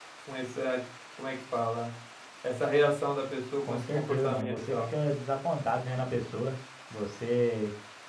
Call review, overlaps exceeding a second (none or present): present